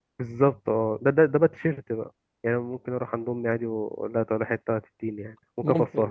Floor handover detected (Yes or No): Yes